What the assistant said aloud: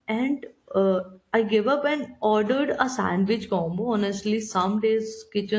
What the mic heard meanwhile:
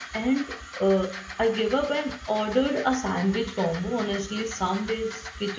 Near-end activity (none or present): none